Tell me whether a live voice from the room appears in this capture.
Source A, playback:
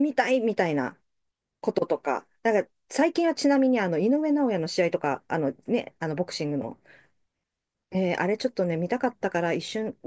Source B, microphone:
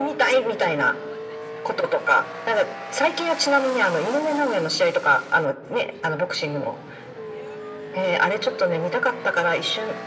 No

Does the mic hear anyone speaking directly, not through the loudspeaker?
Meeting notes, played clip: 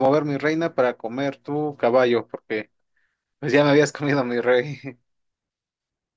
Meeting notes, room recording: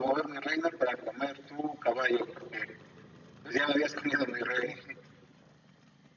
No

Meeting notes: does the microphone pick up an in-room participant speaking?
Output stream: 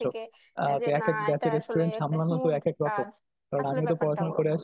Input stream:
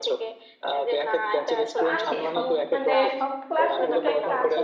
Yes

